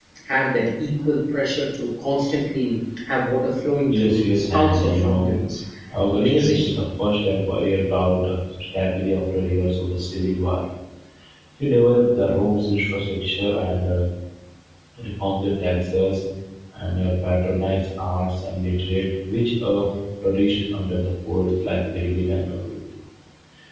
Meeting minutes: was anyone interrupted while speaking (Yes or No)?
Yes